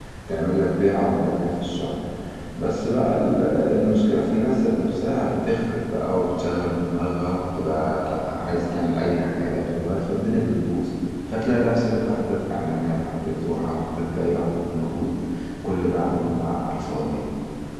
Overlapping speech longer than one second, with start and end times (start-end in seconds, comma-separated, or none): none